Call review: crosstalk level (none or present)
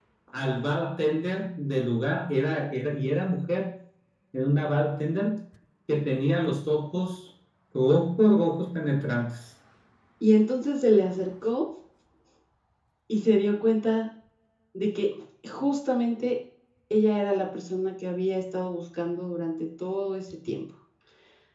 none